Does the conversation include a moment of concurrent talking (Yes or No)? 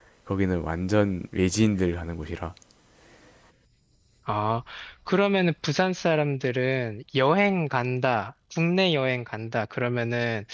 No